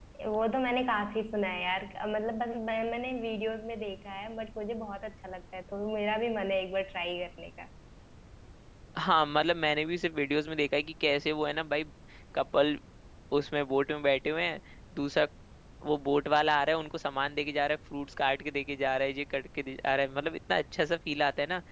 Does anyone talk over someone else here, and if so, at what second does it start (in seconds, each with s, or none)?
none